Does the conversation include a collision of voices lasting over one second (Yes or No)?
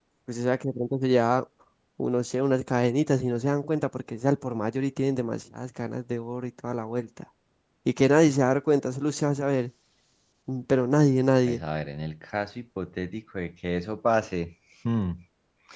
No